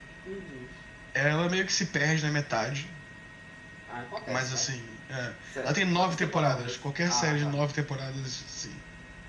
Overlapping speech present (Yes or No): Yes